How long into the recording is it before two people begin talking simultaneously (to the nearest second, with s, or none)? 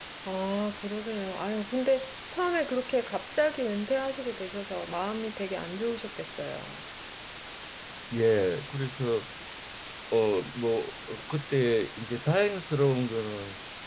none